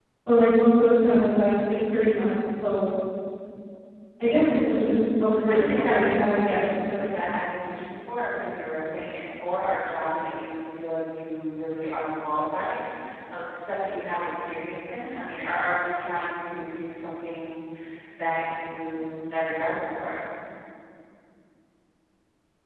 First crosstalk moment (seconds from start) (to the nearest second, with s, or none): 5 s